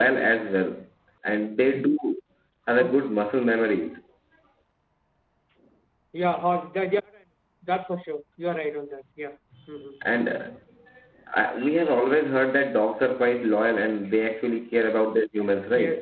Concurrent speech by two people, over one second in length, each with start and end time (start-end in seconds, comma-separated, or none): none